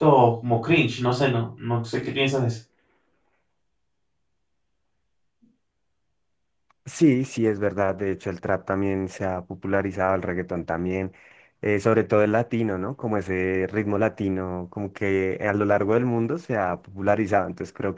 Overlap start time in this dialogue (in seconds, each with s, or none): none